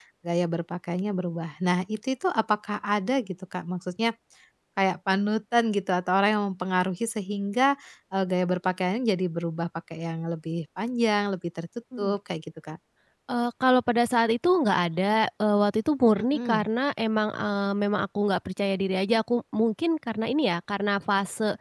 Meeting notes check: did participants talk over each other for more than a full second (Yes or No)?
No